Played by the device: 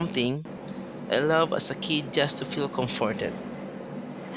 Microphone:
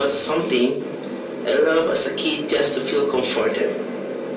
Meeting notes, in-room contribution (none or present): none